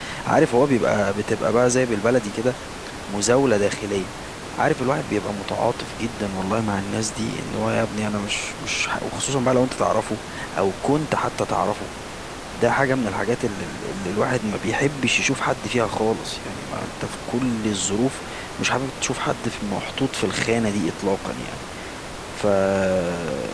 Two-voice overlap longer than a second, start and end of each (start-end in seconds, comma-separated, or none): none